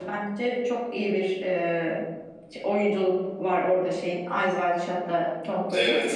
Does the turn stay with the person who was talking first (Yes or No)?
Yes